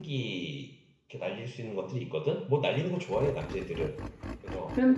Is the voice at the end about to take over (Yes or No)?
Yes